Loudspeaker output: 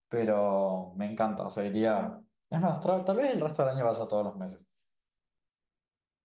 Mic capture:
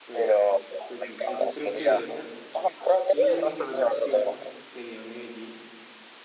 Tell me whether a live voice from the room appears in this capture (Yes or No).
Yes